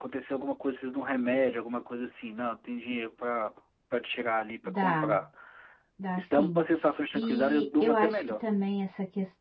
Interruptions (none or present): present